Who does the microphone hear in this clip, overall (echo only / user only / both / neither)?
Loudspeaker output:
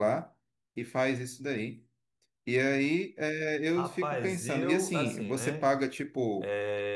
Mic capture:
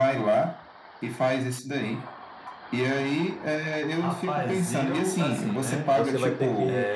both